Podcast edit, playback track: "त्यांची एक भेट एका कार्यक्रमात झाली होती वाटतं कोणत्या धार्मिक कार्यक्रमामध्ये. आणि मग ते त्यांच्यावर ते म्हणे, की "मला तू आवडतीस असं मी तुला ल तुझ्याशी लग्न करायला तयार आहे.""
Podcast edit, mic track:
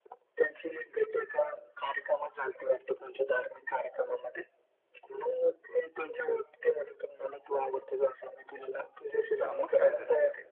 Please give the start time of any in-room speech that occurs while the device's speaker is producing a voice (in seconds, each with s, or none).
9.4 s